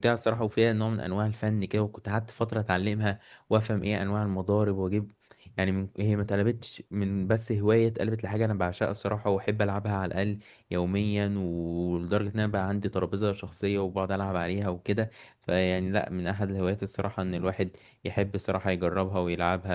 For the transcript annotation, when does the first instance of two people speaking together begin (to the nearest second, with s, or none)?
none